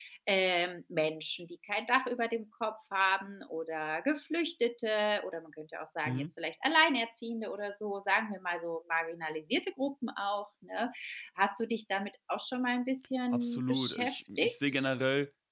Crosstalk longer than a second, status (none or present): present